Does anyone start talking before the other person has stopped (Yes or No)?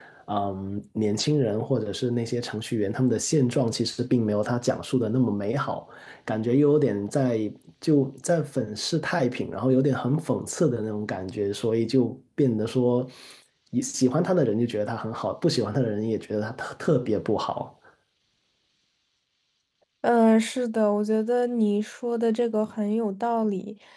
No